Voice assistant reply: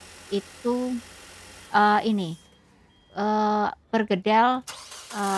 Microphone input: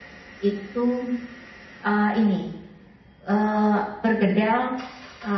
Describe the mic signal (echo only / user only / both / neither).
echo only